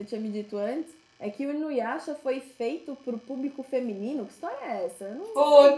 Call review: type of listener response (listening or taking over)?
taking over